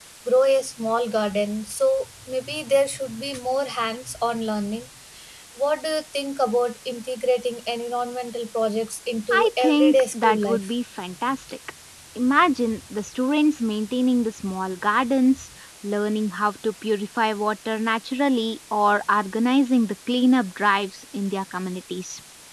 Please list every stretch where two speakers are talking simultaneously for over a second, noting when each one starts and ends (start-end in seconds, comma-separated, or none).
9.3-10.7